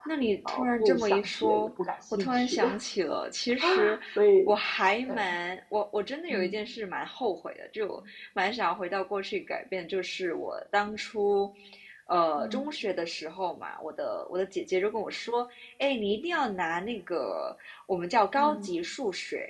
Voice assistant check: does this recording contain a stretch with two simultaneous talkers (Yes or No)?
Yes